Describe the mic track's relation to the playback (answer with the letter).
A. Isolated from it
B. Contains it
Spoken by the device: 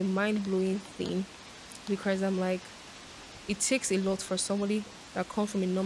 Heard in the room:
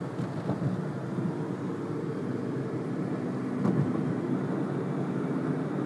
A